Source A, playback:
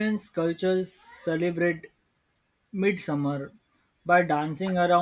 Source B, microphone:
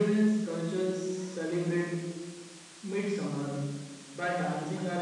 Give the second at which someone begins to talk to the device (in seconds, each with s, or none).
none